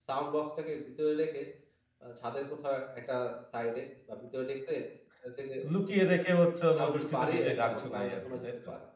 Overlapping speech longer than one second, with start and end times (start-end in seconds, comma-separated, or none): 6.8-8.5